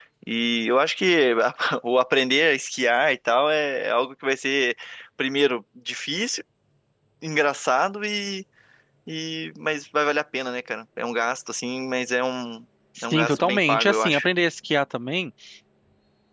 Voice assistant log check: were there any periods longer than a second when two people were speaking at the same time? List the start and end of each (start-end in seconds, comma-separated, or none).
13.0-14.3